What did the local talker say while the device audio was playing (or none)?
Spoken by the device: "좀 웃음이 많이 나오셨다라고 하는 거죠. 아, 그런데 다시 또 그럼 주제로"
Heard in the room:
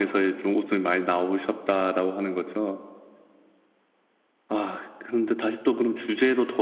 none